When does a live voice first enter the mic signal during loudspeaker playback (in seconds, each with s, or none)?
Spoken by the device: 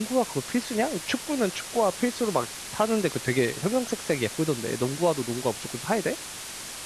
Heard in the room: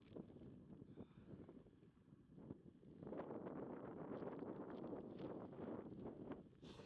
none